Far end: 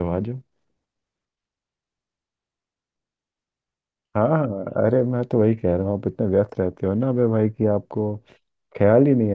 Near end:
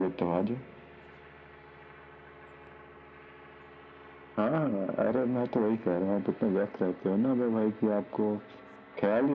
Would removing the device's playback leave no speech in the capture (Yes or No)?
Yes